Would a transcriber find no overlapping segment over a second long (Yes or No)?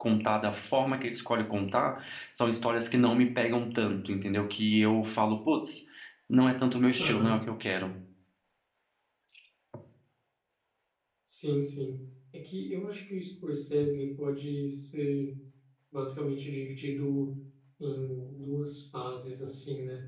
Yes